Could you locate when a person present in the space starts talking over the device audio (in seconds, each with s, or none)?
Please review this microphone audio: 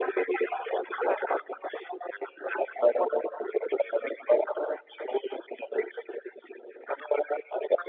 none